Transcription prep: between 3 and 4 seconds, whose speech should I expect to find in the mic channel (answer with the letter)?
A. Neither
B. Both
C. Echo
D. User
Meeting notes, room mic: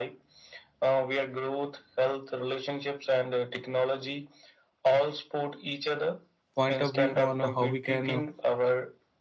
C